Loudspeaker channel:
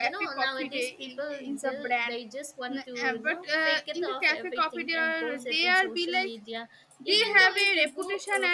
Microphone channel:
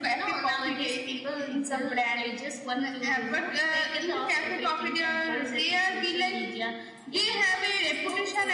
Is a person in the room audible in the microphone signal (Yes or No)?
No